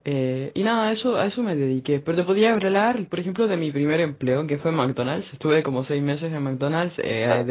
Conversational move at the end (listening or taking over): listening